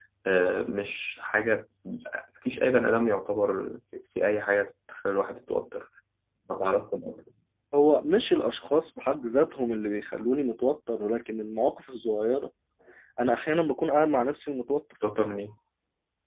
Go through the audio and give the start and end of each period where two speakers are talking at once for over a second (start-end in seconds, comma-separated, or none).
none